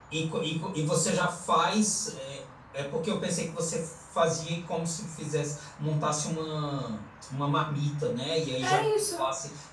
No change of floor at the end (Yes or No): Yes